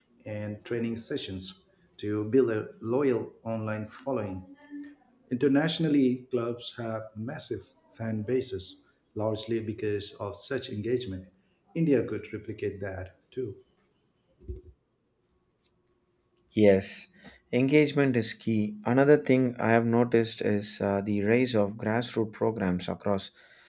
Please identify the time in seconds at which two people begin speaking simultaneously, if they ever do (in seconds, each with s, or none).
none